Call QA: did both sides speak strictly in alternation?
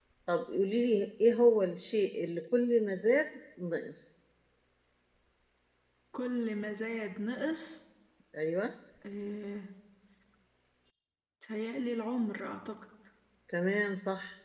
Yes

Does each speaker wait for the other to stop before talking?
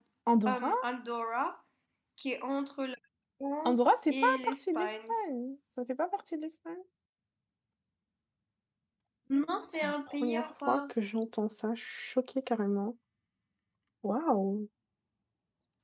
No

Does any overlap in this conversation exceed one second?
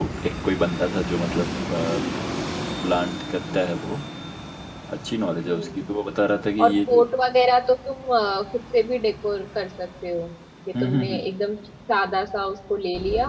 No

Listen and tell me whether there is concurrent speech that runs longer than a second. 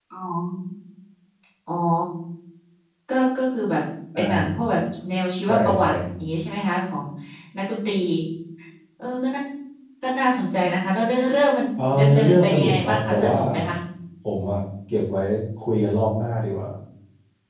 Yes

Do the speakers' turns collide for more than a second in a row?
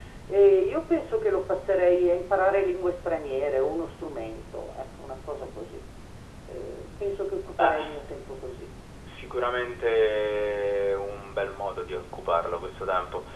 No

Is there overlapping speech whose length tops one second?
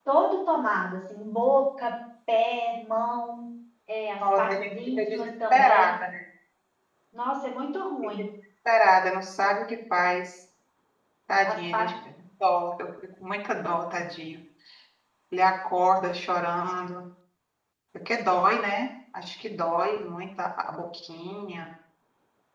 Yes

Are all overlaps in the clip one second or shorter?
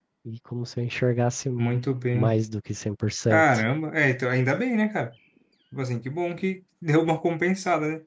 Yes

